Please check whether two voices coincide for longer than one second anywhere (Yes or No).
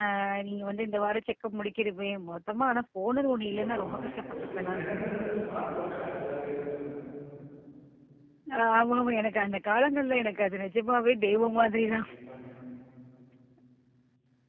Yes